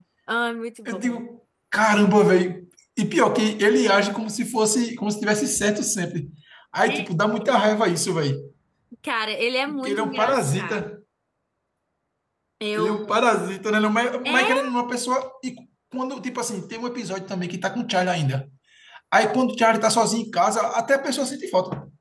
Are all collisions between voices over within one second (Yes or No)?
No